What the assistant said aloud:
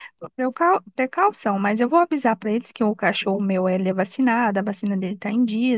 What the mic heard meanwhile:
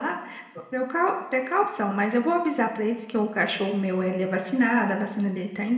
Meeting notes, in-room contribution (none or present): none